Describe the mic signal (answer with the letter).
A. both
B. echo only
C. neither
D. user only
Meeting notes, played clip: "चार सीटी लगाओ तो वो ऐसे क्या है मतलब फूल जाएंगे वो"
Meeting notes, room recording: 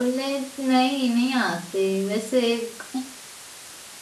D